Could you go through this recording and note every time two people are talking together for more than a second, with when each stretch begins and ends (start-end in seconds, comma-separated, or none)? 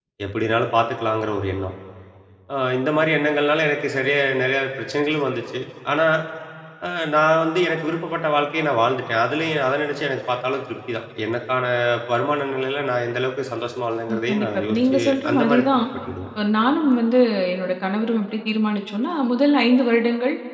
14.1-15.6